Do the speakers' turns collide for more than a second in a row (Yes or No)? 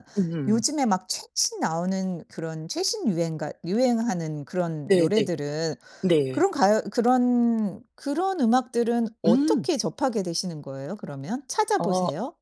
No